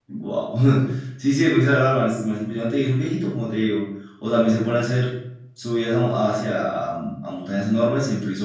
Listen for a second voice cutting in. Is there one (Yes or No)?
No